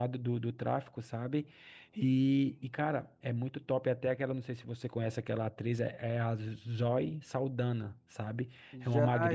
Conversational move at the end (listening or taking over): taking over